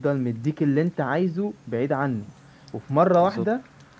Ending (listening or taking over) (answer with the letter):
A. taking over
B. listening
B